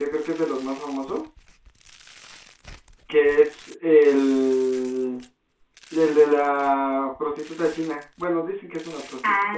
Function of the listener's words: taking over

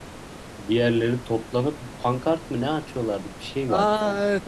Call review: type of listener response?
taking over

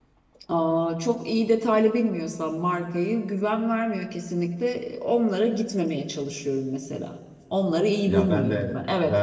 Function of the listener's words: taking over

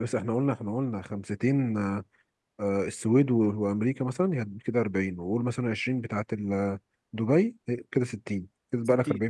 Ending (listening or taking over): taking over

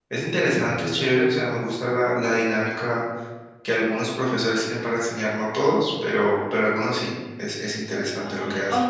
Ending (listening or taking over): taking over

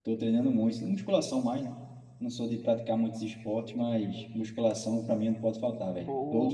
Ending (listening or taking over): taking over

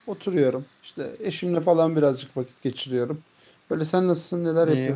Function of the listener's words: taking over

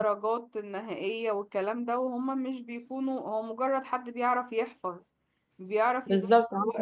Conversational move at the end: taking over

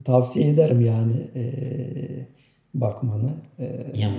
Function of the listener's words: taking over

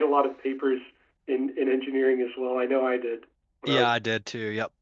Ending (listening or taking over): taking over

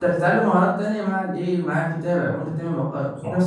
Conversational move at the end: taking over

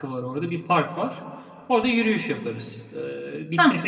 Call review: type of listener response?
listening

